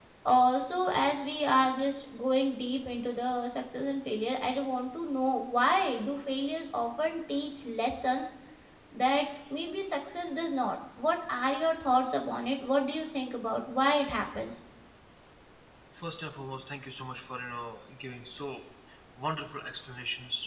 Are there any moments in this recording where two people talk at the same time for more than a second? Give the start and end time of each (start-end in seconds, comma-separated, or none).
none